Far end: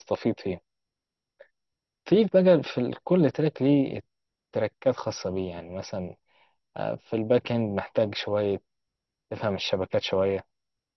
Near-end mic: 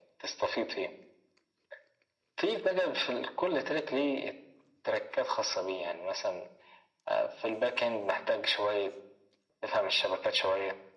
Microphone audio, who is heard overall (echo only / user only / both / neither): echo only